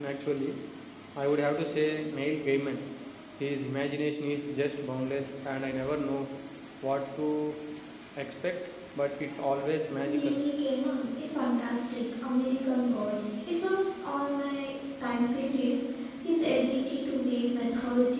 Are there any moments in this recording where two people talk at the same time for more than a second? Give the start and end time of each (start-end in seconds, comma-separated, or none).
none